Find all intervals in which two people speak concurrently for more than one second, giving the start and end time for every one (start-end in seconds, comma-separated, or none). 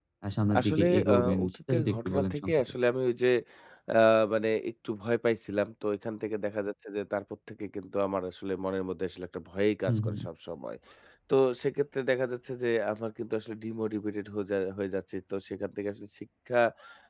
0.6-2.6